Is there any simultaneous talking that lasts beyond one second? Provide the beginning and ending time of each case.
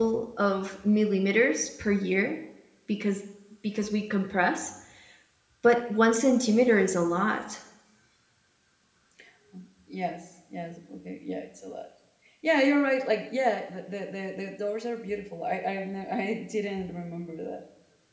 none

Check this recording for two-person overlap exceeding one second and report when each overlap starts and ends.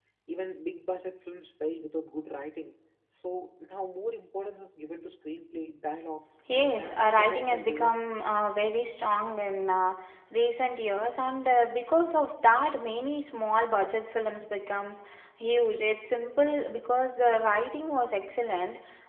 6.5-7.9

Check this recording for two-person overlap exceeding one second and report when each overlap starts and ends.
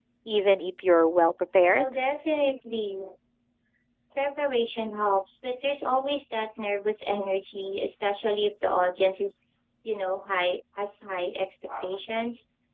none

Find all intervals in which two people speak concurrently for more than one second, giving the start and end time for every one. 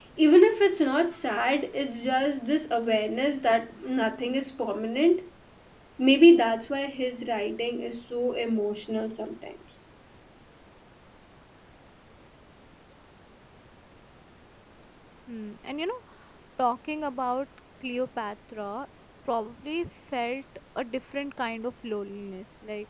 none

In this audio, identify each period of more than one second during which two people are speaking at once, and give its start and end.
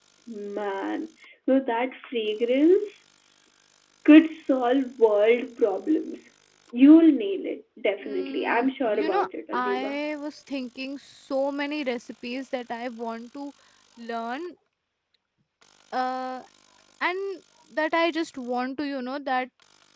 8.0-10.0

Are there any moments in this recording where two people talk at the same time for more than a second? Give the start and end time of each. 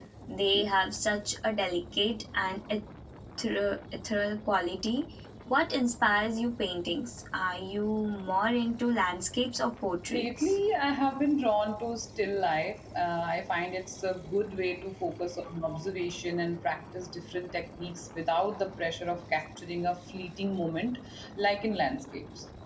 none

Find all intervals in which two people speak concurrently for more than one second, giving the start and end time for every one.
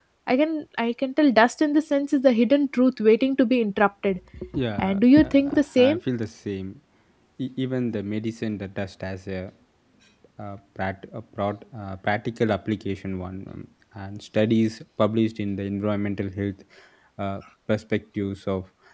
4.8-6.0

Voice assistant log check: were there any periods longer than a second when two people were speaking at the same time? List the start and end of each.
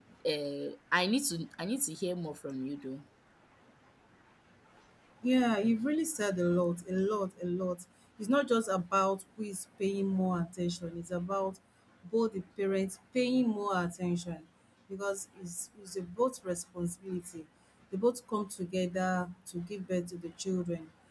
none

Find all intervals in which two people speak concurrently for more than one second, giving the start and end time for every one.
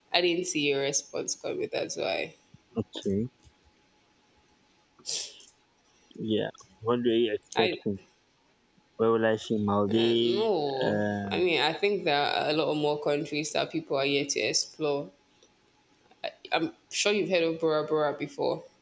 9.9-11.5

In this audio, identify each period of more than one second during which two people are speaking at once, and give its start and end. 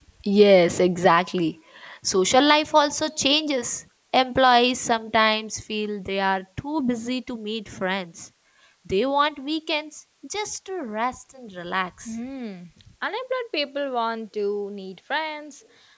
none

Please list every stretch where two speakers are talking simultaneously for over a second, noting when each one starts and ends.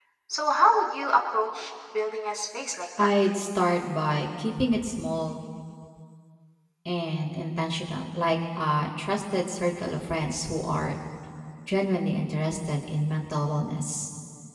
none

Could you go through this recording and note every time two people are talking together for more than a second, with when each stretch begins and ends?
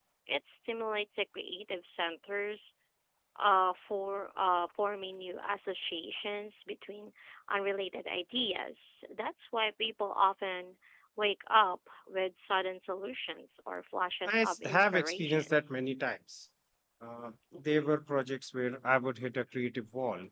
14.2-15.5

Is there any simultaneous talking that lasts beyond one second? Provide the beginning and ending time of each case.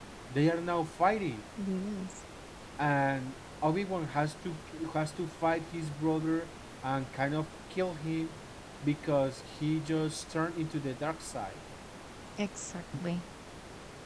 none

